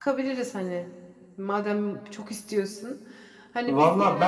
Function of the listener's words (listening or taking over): taking over